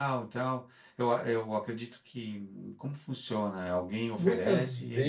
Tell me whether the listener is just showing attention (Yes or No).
No